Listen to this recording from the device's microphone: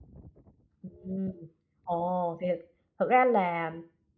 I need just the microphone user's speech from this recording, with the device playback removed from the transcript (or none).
Ừm. Ồ, thì thực thực ra là